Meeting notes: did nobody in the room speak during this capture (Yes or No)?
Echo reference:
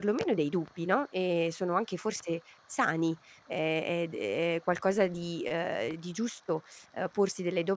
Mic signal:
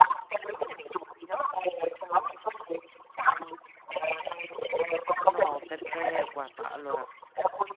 No